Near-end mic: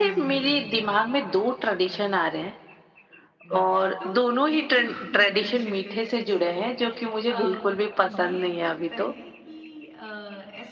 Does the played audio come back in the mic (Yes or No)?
Yes